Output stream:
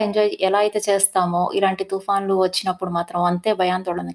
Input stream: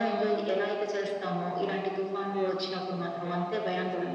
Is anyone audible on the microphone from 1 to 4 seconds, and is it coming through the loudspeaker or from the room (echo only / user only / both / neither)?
both